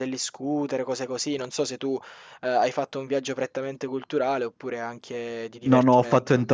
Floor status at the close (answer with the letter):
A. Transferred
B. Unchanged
A